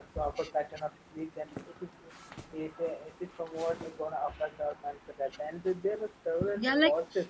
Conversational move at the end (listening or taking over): taking over